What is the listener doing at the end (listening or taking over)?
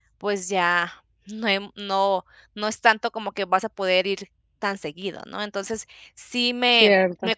listening